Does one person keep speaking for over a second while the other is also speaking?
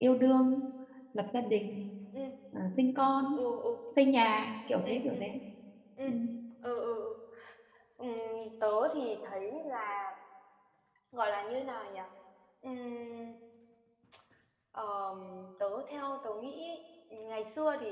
No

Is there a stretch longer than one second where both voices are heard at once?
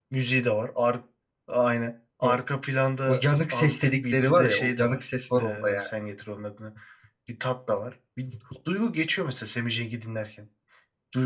Yes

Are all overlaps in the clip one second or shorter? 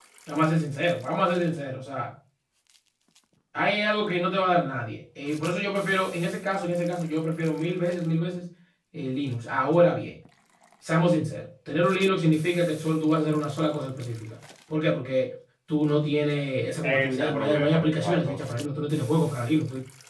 No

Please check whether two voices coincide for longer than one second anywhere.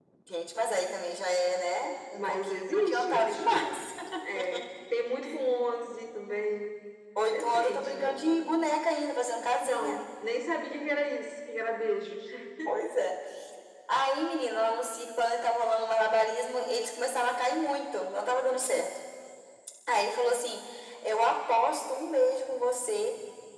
Yes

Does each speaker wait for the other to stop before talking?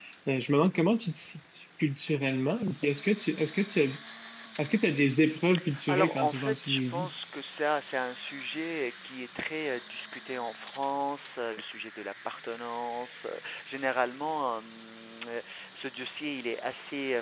No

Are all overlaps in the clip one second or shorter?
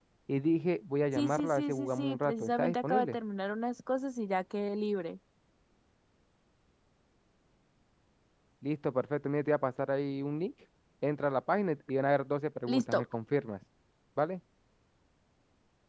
No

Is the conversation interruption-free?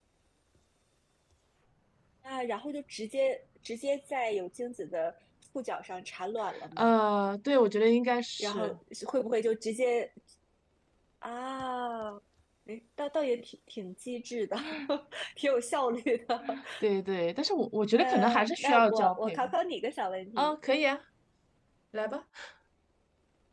No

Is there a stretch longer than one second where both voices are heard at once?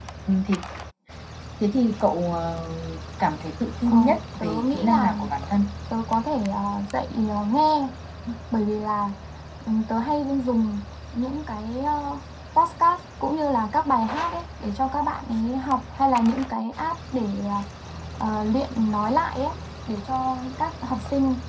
Yes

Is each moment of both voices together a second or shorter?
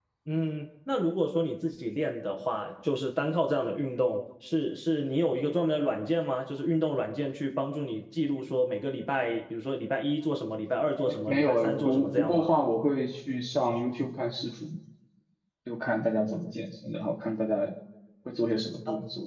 No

